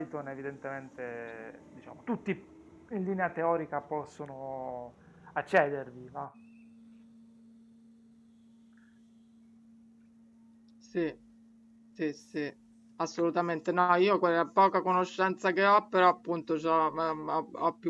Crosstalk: none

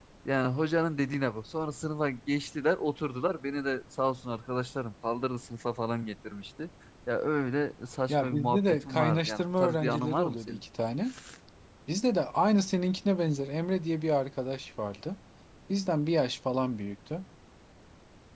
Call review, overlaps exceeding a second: present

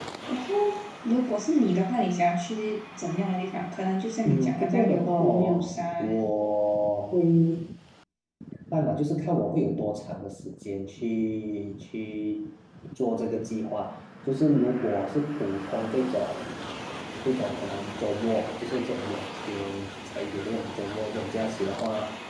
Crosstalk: present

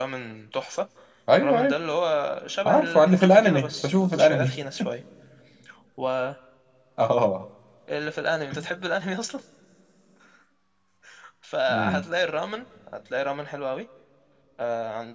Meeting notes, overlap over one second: present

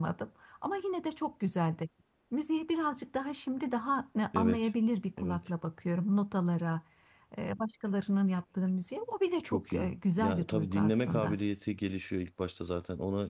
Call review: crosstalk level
present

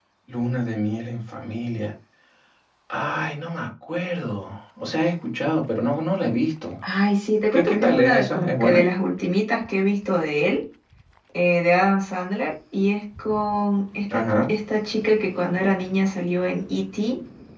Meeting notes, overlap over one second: present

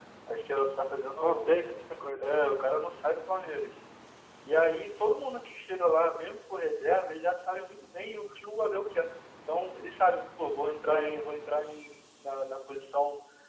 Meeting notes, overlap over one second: none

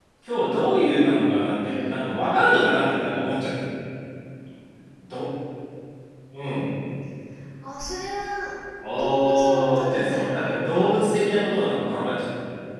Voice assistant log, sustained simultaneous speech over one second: present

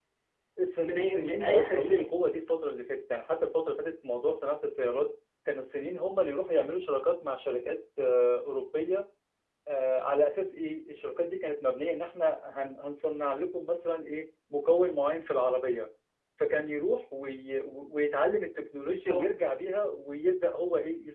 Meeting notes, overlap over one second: present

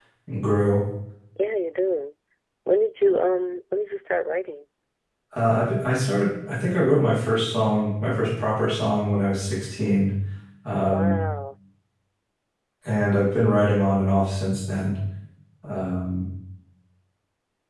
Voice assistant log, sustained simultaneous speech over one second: none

